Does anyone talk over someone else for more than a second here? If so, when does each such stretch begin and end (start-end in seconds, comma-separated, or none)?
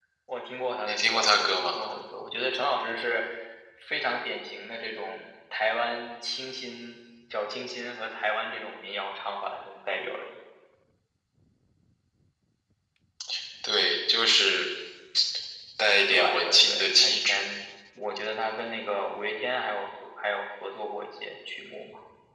16.1-17.4